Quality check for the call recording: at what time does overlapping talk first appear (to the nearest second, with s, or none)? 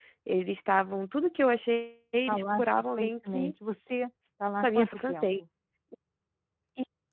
2 s